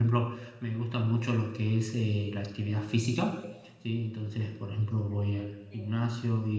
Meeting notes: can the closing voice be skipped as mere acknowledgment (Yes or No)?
Yes